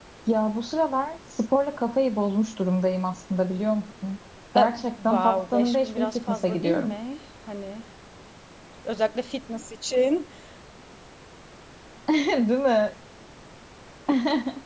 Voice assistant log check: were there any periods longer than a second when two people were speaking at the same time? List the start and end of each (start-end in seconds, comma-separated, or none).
4.6-7.0